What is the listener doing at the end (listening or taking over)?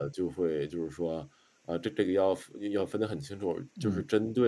listening